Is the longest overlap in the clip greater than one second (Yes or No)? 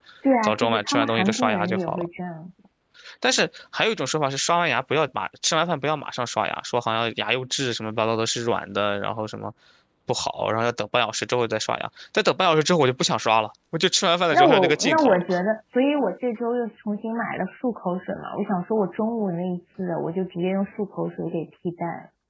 Yes